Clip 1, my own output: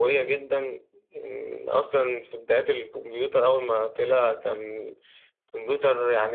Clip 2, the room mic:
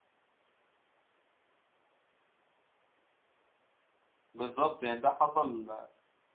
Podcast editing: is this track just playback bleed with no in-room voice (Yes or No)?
No